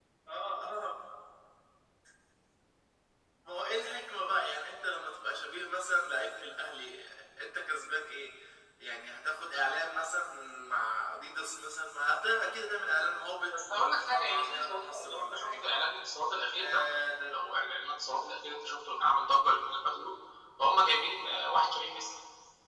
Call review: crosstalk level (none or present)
present